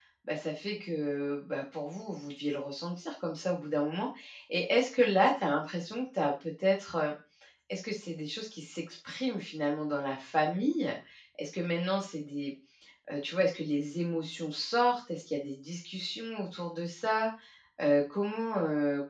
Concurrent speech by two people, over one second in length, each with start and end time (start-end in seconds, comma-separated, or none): none